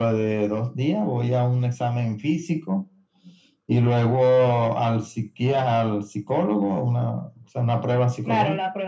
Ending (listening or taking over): taking over